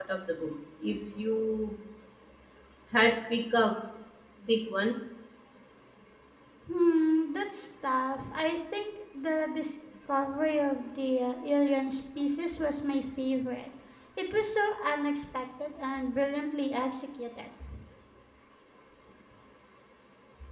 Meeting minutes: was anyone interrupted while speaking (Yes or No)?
No